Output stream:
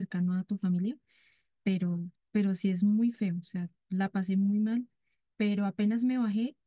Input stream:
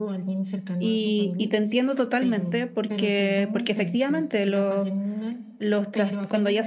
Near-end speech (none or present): present